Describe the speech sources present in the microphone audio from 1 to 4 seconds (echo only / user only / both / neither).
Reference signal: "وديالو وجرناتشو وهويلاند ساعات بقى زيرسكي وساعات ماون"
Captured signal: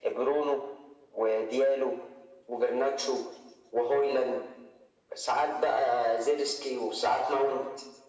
echo only